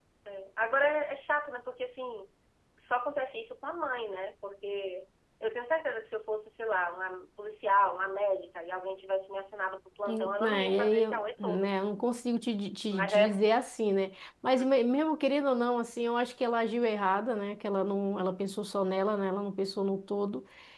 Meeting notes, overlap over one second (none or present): present